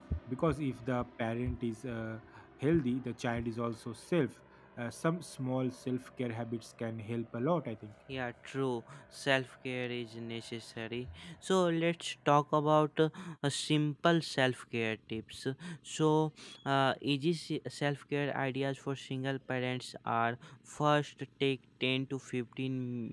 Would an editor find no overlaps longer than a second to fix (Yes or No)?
Yes